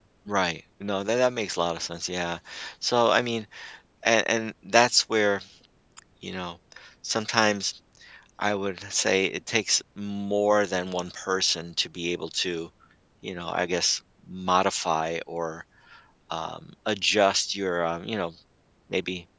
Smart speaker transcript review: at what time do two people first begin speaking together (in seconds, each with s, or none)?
none